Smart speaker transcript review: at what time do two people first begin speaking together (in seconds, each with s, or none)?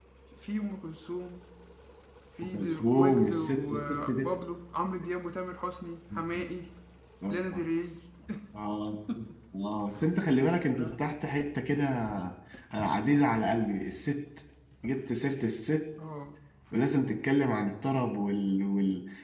2.5 s